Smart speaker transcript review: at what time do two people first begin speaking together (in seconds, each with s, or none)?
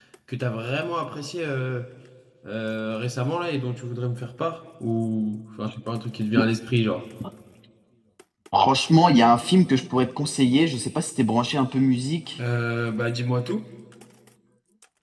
none